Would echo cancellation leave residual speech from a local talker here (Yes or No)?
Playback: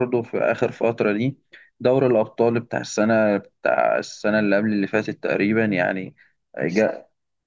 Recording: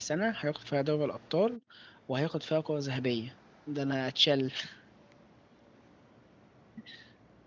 Yes